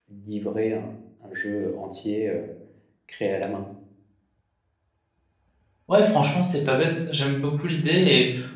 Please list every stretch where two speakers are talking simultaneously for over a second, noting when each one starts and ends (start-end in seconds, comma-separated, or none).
none